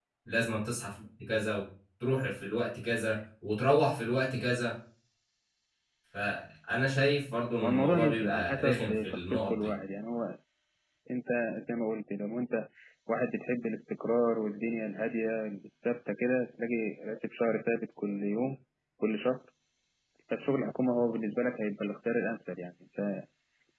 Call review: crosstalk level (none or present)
present